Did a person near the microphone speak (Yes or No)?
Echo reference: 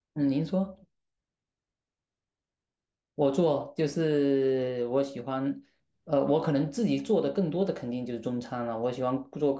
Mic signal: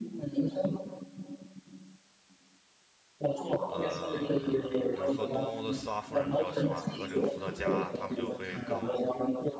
Yes